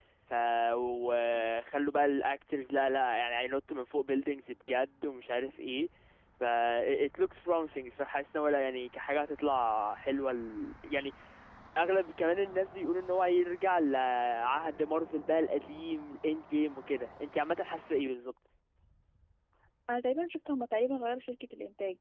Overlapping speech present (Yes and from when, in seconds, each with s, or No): No